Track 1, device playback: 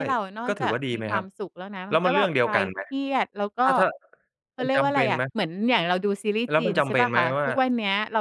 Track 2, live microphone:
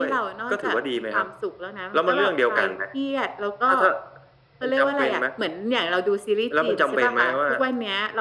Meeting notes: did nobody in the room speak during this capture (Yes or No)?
Yes